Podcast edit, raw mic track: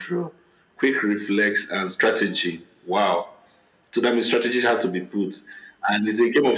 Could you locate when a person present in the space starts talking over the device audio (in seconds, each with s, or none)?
none